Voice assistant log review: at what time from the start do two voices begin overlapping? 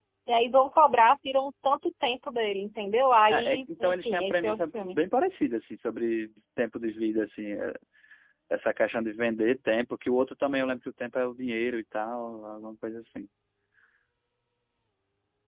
3.3 s

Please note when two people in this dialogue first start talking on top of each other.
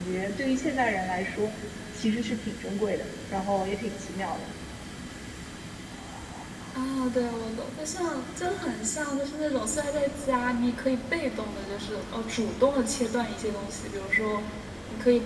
none

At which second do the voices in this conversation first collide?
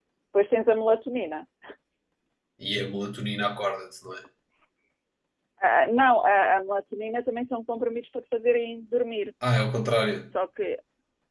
none

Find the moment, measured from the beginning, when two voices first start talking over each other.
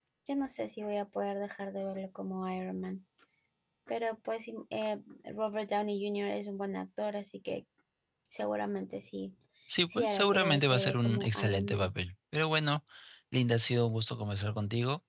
9.9 s

